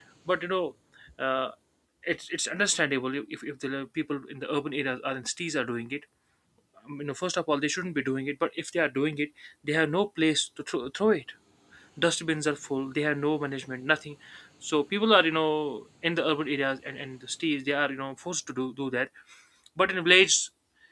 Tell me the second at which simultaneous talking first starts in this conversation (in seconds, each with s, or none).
none